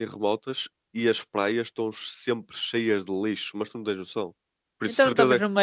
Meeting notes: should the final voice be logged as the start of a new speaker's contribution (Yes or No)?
Yes